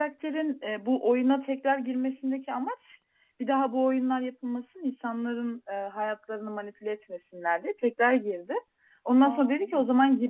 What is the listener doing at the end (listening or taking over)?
listening